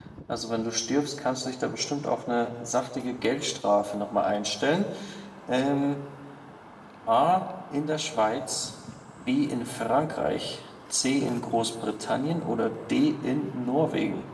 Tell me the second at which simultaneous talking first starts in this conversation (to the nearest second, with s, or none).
none